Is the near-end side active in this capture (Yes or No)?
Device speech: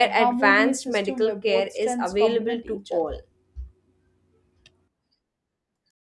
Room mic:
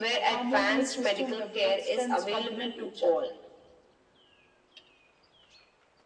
No